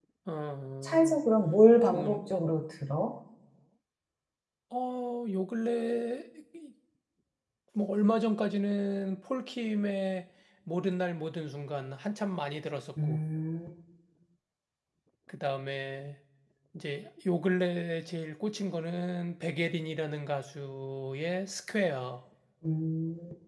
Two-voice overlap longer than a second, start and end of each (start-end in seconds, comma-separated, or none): none